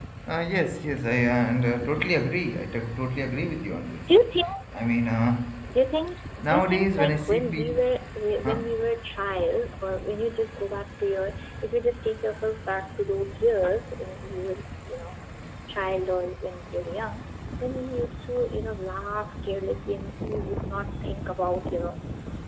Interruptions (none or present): present